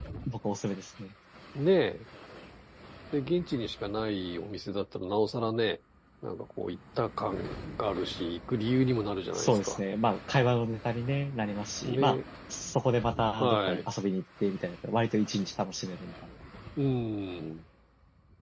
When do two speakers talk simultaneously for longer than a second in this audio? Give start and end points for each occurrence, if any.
none

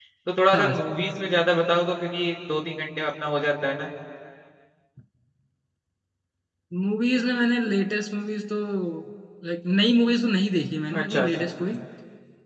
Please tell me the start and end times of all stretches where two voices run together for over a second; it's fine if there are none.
none

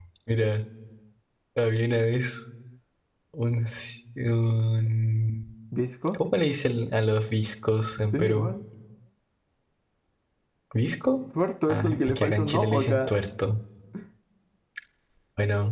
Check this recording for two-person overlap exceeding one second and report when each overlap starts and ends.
11.7-13.1

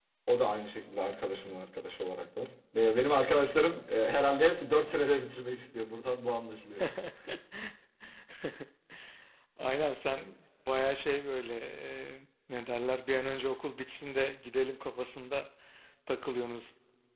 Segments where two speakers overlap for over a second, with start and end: none

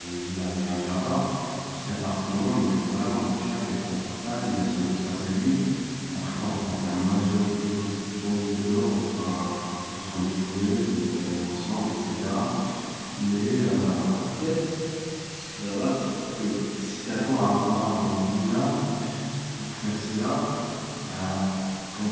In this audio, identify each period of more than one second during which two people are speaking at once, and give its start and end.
none

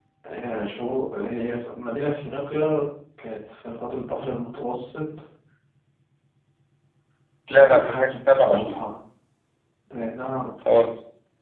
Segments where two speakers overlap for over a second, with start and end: 7.5-8.8

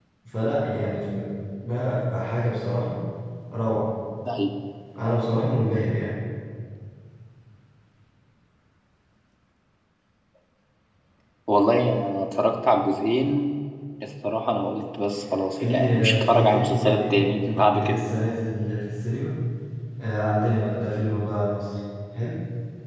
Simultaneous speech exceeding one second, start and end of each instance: 15.6-17.2

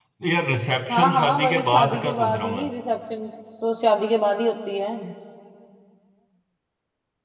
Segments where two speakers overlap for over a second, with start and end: 0.9-2.7

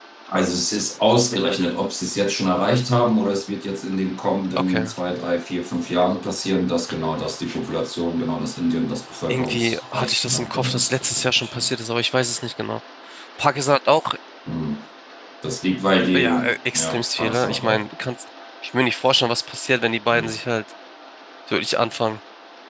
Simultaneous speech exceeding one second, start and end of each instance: 9.3-11.7, 16.1-17.8

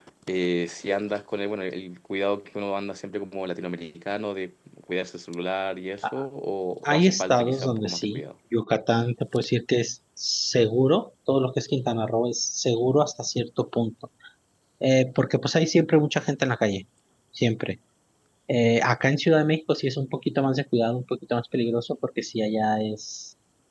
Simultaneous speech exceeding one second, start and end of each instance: 6.8-8.2

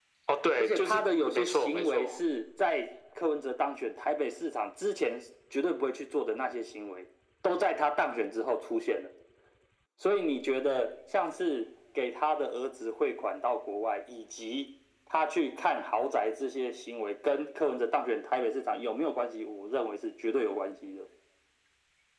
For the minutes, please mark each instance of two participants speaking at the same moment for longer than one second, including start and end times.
0.6-2.1

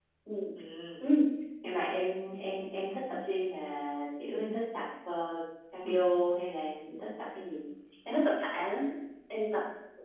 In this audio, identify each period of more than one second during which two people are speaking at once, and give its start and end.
none

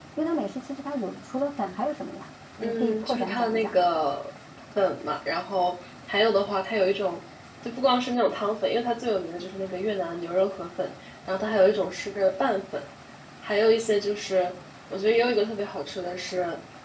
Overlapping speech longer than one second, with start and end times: 2.6-3.8

